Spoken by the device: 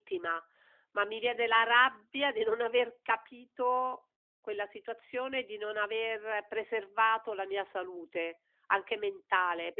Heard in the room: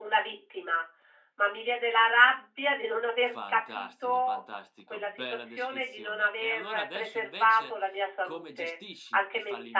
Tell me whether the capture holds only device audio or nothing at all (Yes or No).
No